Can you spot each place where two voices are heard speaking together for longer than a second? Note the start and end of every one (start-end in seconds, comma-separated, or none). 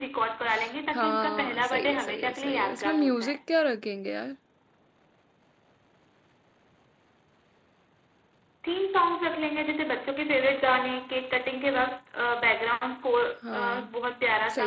0.9-3.4